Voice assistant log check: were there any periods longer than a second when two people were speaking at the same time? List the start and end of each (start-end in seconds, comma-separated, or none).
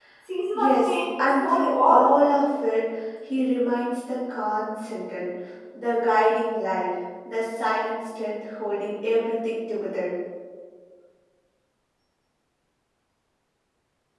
0.5-2.1